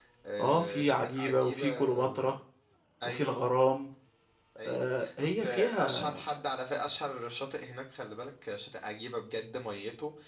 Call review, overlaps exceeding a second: present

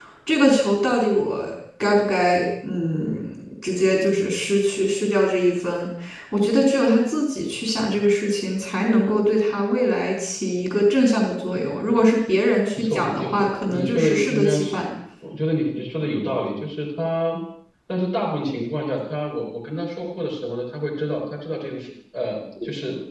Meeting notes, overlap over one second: present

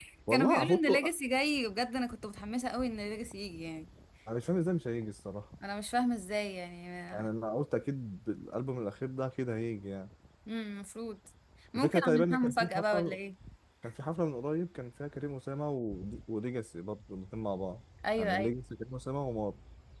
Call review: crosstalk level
present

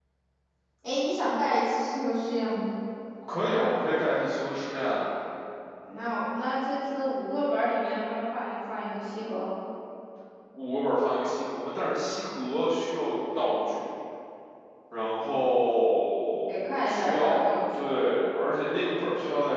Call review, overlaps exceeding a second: present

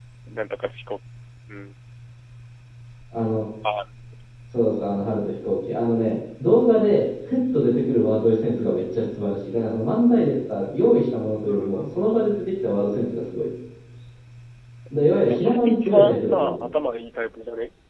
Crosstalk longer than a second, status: present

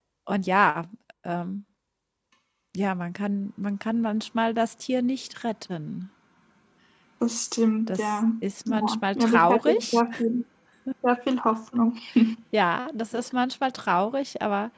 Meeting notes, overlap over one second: present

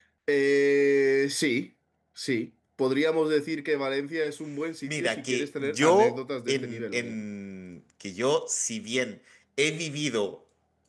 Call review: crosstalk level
present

